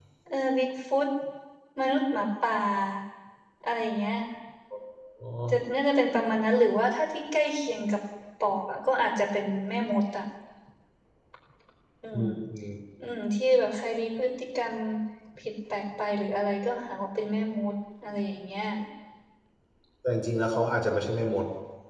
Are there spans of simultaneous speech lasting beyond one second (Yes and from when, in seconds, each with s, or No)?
No